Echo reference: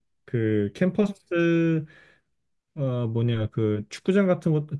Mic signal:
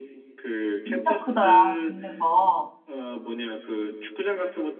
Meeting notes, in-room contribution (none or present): present